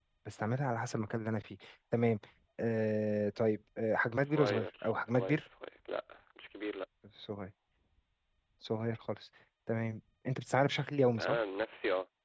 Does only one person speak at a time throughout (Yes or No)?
No